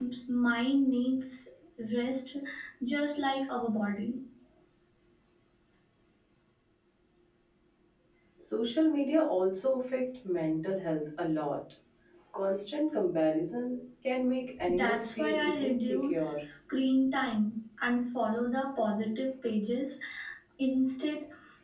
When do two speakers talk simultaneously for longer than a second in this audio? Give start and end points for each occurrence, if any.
14.7-16.4

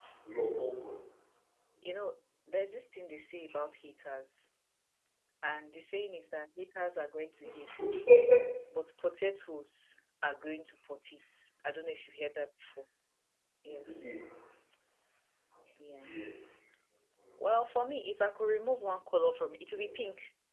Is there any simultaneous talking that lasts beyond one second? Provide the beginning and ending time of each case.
none

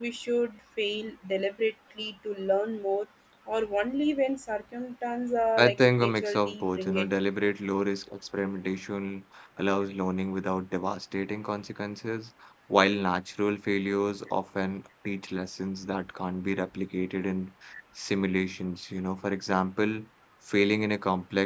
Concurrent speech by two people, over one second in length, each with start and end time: 5.6-7.1

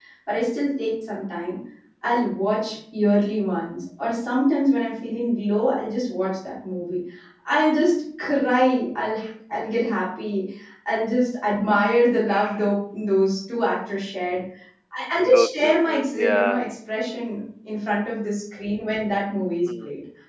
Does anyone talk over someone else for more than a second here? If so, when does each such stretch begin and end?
15.3-16.7

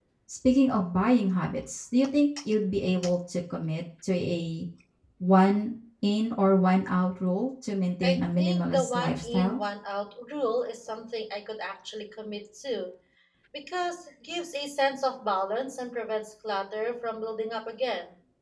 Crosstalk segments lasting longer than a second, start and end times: 8.0-9.6

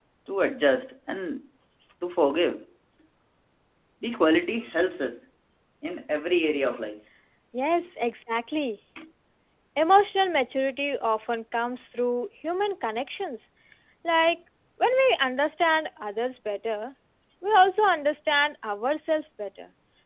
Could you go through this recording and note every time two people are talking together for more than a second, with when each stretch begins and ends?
none

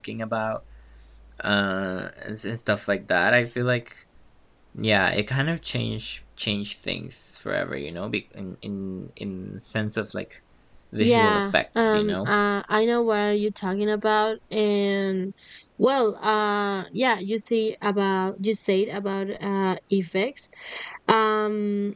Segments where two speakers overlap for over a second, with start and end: 11.0-12.3

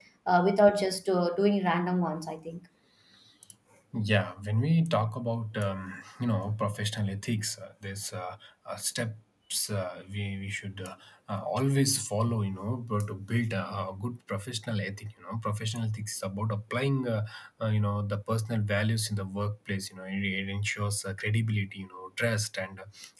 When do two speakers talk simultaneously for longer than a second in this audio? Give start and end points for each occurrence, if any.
none

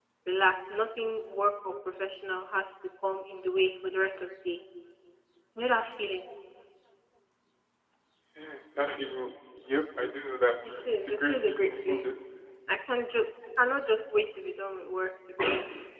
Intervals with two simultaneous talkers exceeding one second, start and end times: 10.8-12.1

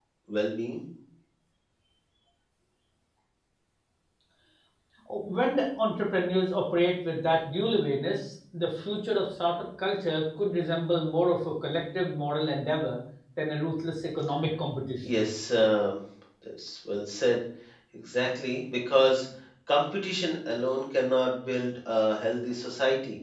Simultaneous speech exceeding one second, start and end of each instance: none

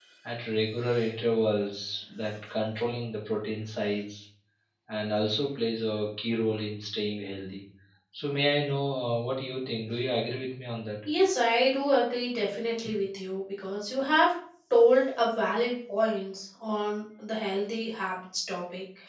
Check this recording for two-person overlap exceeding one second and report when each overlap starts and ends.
none

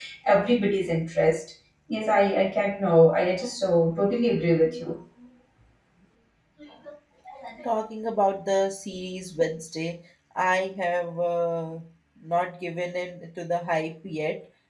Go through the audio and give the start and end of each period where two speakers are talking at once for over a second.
none

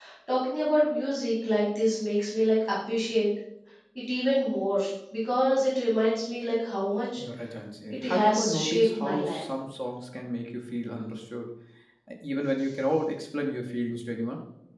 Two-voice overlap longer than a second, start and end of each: 7.9-9.4

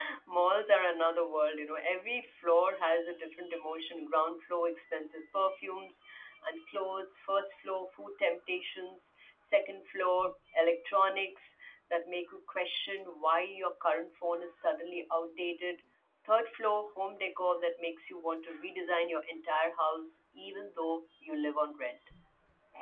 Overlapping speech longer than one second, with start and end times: none

